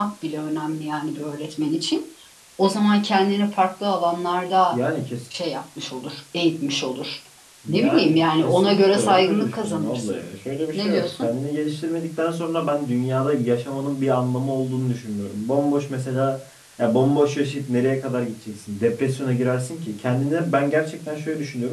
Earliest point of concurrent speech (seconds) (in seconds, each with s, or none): 7.7 s